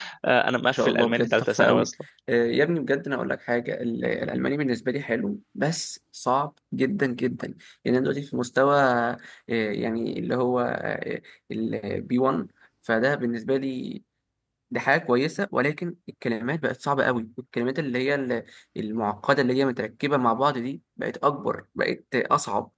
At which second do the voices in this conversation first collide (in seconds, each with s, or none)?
0.7 s